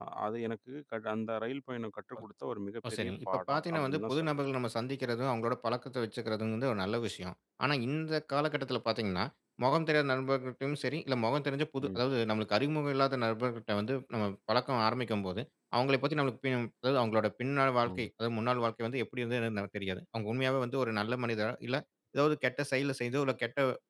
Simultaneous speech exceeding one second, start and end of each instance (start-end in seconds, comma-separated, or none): 2.9-4.4